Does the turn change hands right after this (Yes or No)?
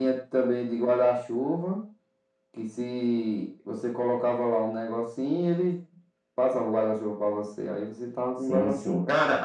Yes